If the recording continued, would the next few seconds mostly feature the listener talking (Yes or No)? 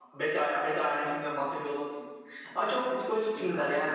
No